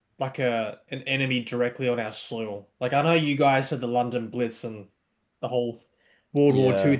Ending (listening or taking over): listening